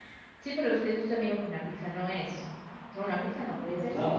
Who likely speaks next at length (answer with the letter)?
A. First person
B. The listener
B